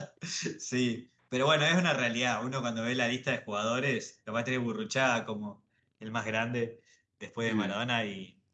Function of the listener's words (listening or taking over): listening